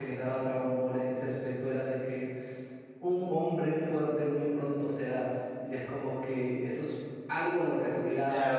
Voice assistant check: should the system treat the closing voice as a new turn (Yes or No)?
Yes